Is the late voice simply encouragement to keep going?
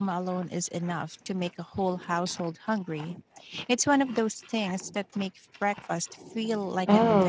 No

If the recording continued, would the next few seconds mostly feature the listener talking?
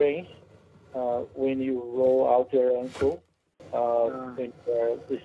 No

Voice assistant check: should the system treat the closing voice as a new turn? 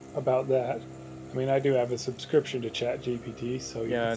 Yes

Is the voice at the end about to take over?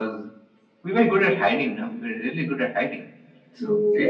Yes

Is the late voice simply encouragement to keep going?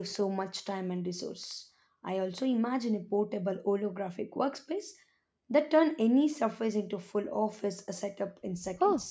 No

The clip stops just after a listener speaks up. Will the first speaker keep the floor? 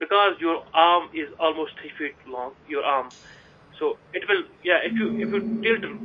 Yes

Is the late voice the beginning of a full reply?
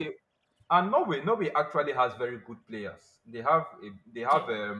No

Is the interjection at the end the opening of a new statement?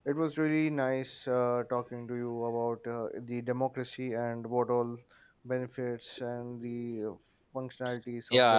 Yes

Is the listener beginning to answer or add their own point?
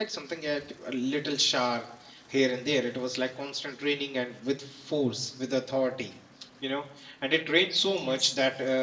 No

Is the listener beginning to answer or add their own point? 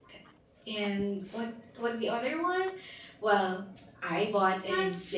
No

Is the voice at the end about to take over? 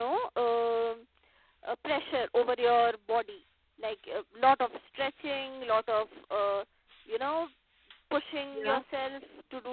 No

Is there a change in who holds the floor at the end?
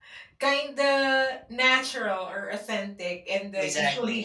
No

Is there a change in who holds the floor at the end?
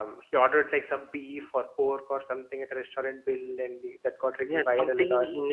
Yes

